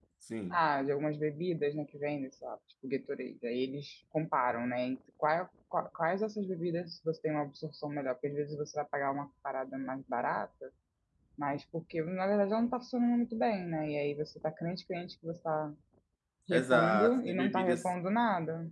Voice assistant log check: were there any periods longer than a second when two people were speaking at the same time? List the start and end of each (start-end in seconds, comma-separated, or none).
16.5-17.9